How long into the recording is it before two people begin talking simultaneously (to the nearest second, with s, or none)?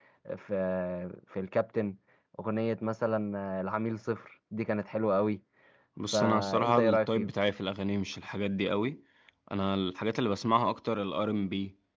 6 s